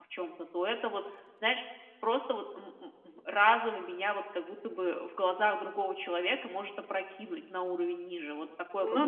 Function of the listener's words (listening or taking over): taking over